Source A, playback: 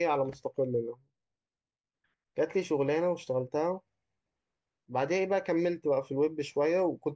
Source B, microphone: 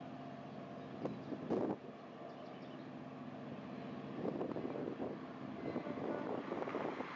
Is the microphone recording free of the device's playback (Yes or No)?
Yes